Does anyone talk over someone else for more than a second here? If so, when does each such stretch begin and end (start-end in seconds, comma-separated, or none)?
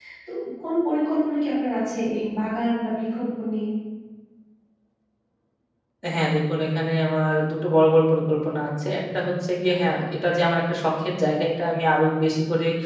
none